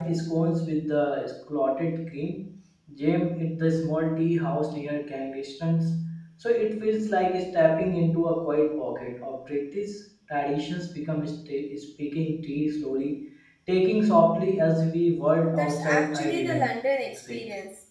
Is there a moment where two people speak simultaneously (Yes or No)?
Yes